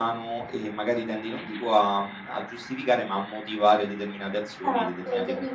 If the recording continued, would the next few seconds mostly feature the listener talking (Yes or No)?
Yes